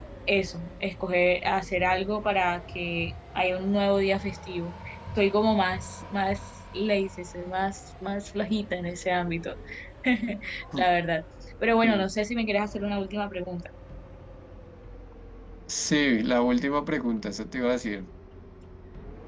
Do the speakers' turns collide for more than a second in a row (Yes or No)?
No